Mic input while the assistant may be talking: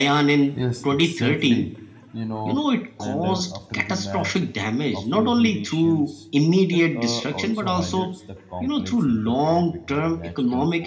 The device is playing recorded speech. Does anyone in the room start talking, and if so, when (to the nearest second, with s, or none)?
1 s